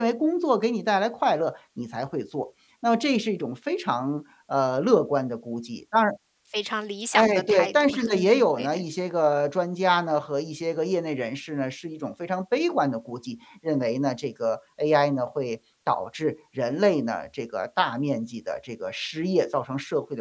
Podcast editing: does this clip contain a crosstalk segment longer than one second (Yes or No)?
Yes